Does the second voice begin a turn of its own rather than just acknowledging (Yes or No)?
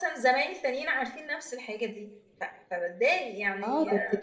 Yes